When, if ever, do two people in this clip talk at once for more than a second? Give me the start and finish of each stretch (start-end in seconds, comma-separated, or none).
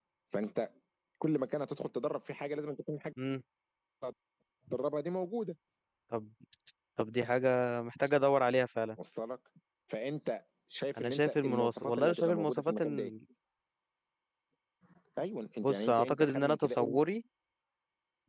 11.0-13.1, 15.6-17.0